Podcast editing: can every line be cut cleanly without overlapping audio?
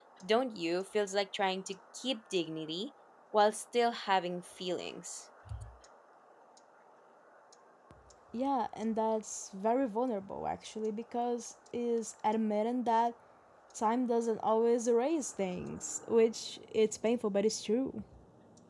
Yes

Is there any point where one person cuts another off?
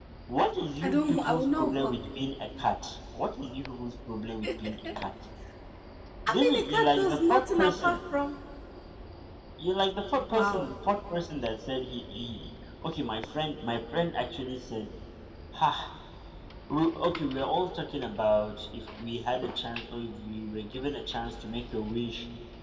Yes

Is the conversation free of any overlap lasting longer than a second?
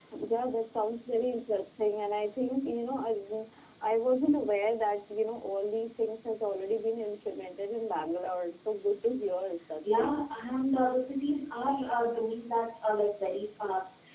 Yes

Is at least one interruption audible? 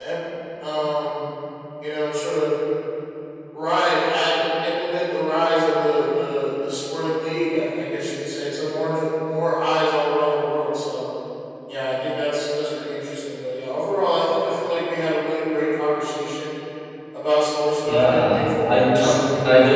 Yes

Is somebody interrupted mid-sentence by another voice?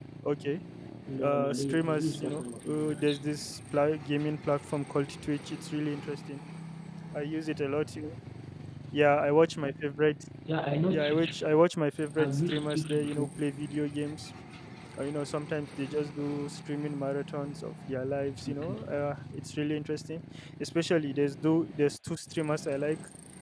Yes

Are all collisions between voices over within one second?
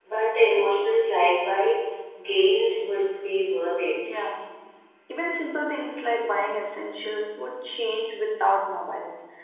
Yes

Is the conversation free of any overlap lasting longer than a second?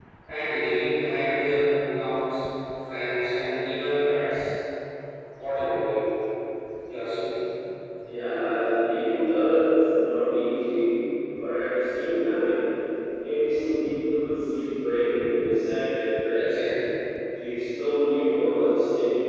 Yes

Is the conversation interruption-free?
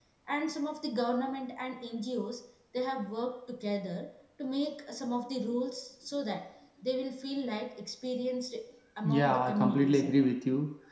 No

